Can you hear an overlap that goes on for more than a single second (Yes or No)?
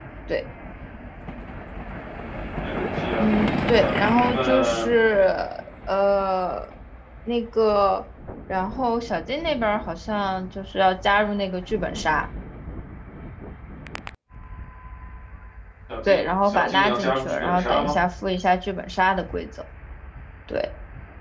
Yes